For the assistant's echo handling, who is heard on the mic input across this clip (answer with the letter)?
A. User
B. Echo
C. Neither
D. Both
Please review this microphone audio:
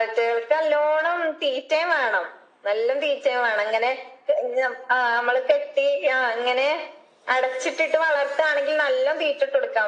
B